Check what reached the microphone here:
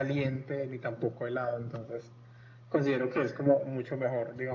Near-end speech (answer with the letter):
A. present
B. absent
B